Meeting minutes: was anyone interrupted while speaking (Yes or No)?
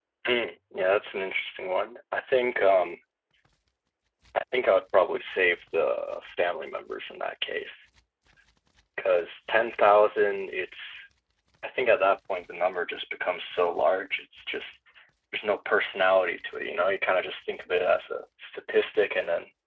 No